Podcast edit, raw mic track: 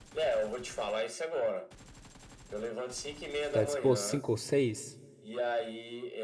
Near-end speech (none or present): present